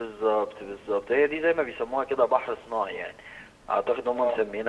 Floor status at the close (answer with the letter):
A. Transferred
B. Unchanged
B